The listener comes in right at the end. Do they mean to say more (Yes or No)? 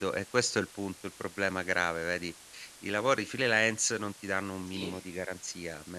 No